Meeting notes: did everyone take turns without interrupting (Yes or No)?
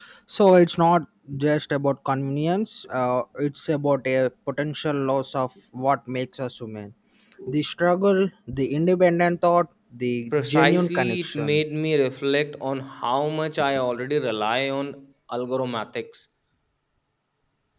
No